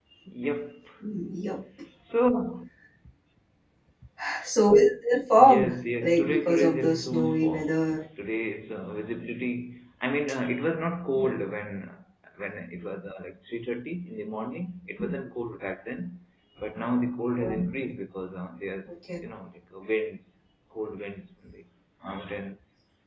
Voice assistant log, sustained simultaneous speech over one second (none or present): present